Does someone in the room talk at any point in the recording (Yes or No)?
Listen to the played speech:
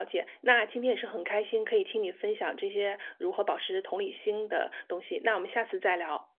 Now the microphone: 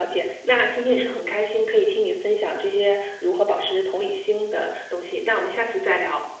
No